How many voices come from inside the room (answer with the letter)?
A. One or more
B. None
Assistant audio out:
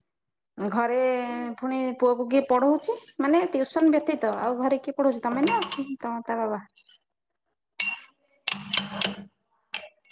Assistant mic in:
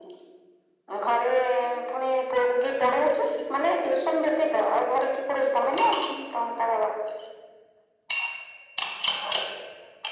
B